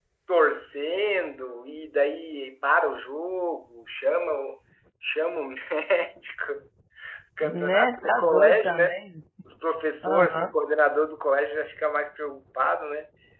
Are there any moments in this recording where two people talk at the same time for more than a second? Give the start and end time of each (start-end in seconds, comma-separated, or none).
7.4-9.0